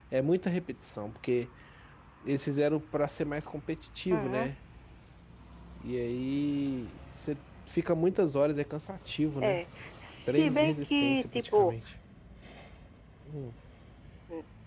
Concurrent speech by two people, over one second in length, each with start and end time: 10.3-11.7

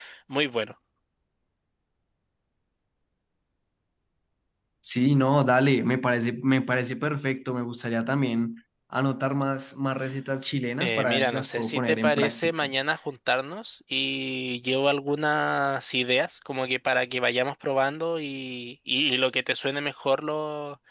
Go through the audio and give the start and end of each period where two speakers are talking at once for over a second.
10.8-12.7

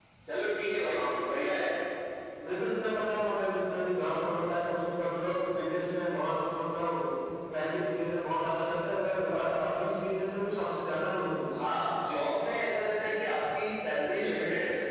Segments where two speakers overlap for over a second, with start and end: none

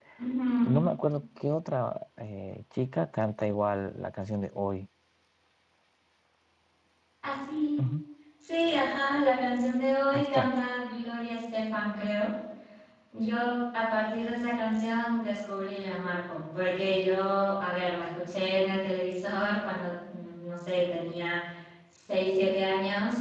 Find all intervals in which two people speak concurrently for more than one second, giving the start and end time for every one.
none

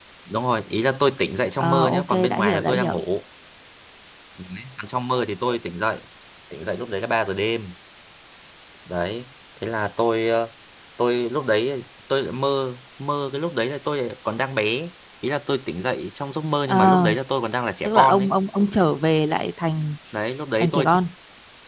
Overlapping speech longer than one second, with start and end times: 1.6-3.0

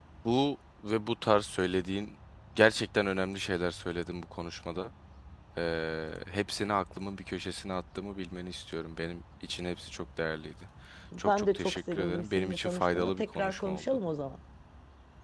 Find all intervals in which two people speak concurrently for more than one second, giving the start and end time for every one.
11.2-13.8

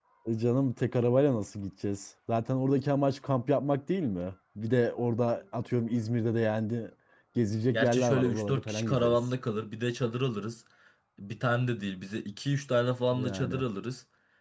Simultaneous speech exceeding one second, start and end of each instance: 7.7-9.2

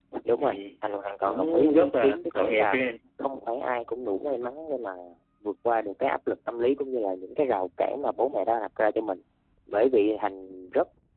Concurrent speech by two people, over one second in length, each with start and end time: 1.2-2.8

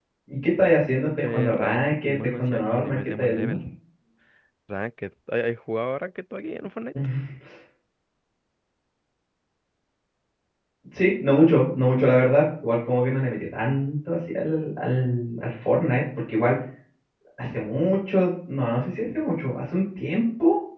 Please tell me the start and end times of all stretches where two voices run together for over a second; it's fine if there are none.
1.2-3.6

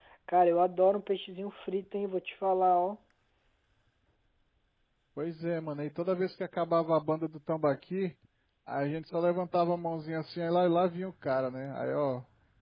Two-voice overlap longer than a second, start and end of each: none

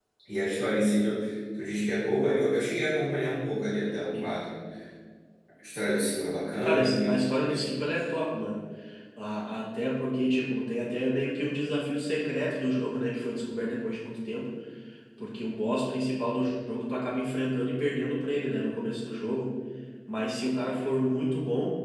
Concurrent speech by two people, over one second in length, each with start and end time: 6.6-8.0

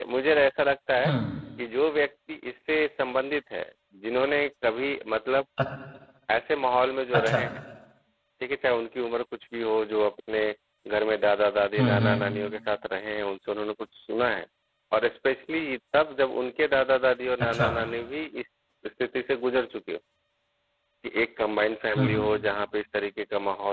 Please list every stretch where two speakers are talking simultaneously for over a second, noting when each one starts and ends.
none

